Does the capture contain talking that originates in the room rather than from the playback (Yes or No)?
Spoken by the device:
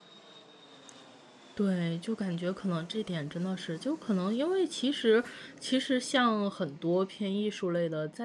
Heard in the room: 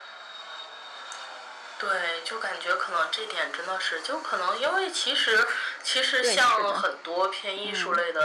Yes